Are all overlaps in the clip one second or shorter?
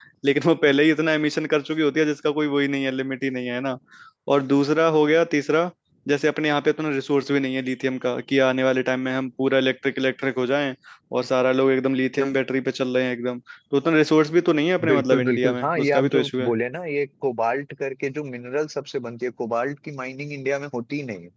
No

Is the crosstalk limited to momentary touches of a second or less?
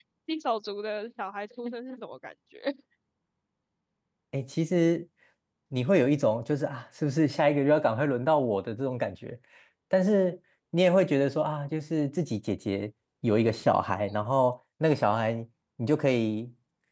Yes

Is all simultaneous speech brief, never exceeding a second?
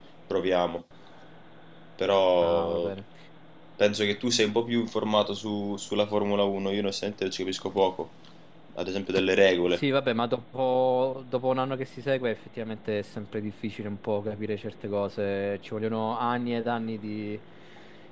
Yes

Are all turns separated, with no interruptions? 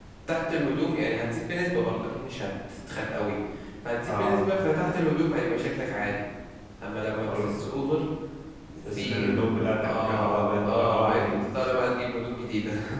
No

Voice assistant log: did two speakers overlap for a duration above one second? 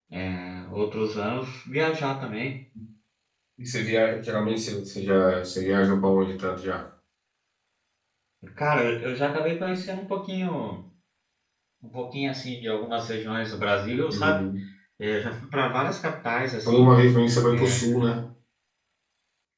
No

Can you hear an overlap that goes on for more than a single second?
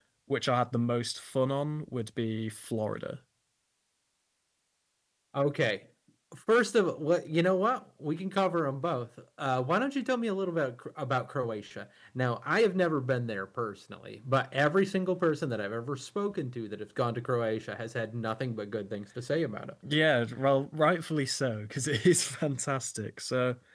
No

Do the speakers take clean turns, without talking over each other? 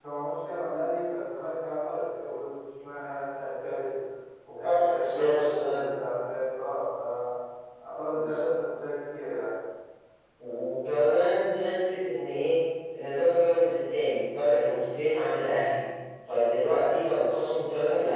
No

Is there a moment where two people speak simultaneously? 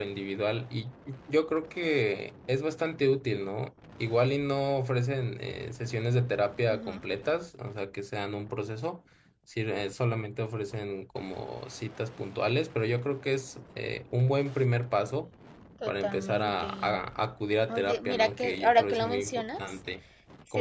Yes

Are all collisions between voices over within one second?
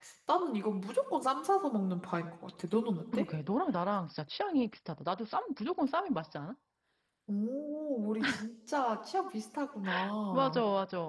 Yes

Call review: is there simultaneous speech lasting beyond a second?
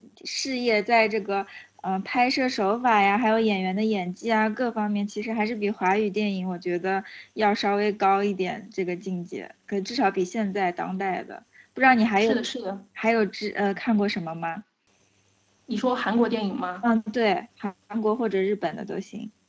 No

